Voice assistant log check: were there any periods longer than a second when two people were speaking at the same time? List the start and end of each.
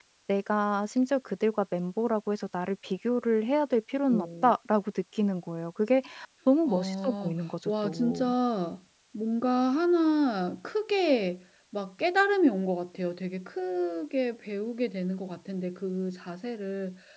6.7-8.3

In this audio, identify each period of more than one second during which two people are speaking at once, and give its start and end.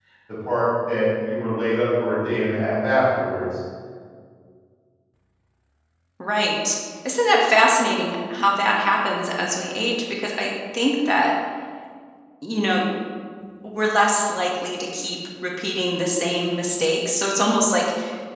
none

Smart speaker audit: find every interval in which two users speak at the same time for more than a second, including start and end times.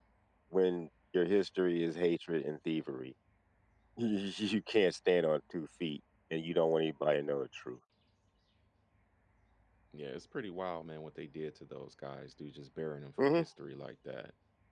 none

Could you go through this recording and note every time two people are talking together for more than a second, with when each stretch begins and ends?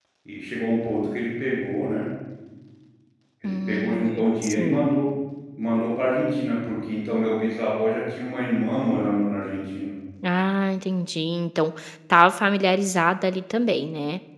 3.4-4.8

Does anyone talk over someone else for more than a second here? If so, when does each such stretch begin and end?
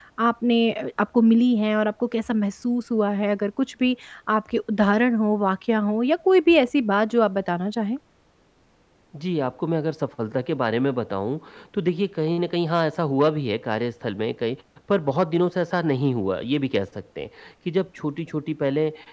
none

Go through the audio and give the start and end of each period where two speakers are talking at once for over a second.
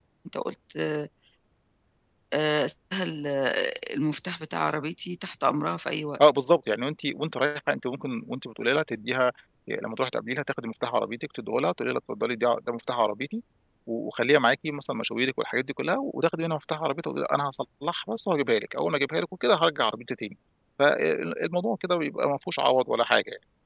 none

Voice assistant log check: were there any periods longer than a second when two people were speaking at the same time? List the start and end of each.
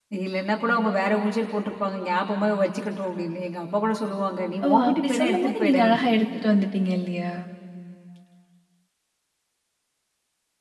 4.6-5.9

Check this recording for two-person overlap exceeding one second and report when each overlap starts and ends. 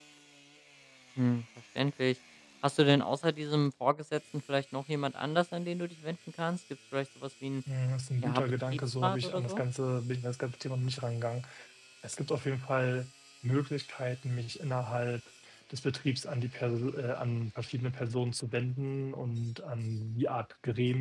8.2-9.6

